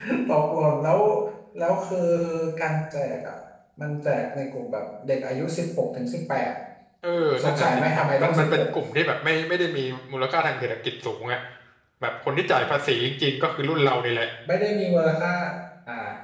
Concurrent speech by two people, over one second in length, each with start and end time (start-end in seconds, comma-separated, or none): 7.4-8.7